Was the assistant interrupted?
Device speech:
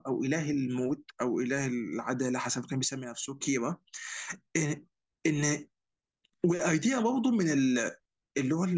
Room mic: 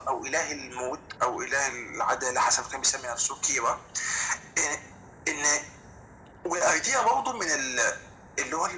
No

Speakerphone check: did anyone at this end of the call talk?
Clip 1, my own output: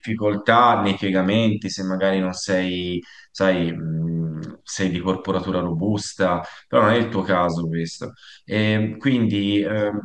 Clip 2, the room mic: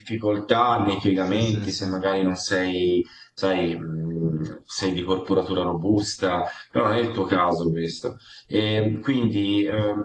Yes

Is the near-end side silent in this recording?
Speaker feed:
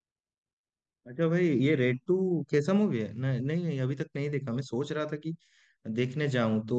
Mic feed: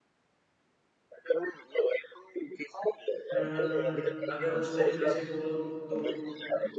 No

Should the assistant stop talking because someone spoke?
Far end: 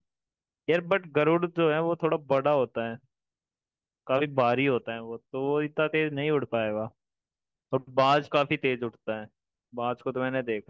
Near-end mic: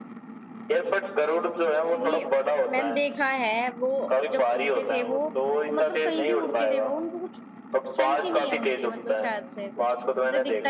Yes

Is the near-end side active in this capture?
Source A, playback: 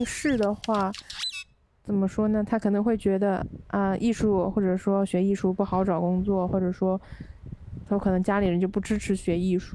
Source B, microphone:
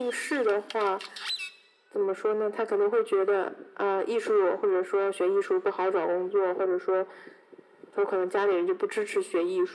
No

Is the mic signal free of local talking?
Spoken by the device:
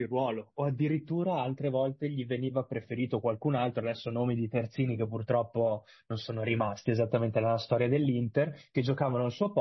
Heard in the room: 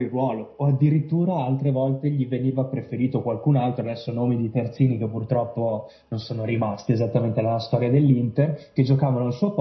Yes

